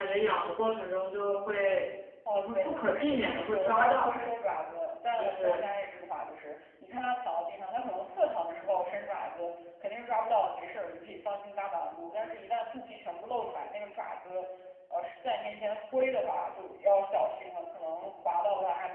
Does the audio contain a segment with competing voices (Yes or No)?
Yes